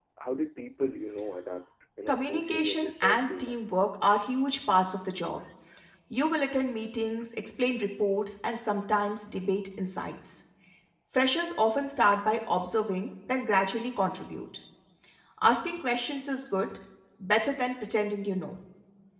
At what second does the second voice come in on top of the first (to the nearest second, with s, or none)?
2 s